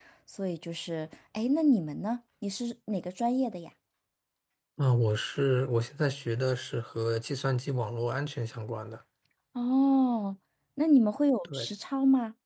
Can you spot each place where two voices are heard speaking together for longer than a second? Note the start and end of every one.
none

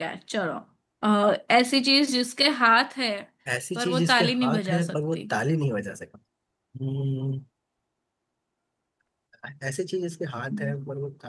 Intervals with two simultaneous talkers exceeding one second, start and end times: 3.8-5.2

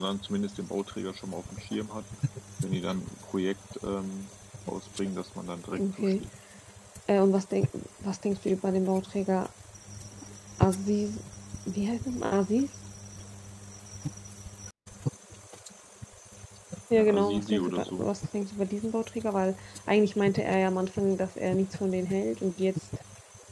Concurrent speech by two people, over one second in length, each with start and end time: 16.9-18.1

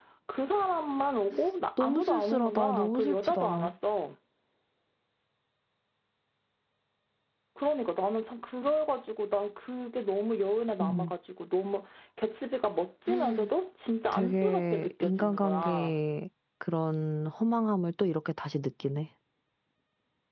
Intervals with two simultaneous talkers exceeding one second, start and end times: 1.8-3.4, 14.1-16.0

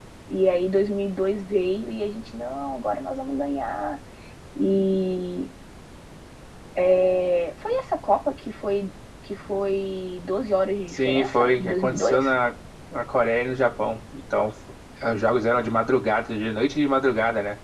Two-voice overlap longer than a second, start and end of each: 10.9-12.3

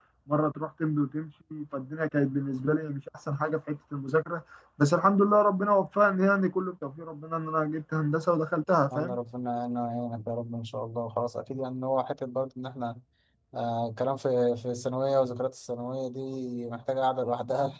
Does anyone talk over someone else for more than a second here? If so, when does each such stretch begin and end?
none

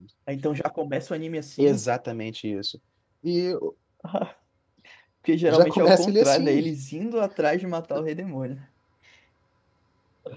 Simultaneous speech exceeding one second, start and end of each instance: 5.5-6.7

